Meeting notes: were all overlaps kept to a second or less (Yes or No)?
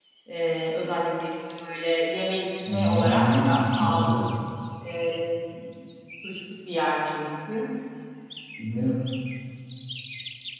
No